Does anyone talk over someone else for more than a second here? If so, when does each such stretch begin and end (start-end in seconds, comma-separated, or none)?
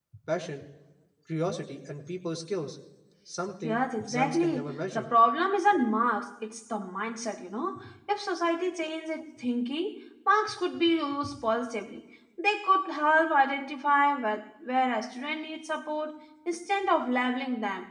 3.6-5.0